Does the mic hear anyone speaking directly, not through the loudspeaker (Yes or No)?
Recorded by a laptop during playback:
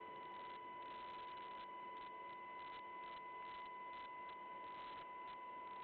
No